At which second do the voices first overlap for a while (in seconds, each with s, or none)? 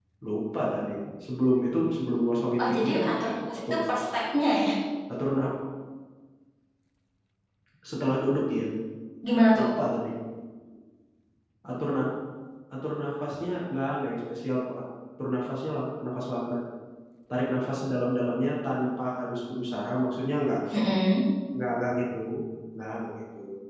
2.6 s